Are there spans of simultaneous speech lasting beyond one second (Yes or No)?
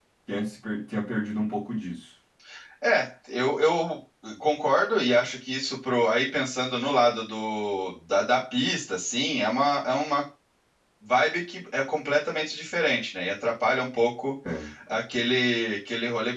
No